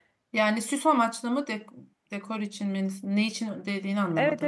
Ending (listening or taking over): taking over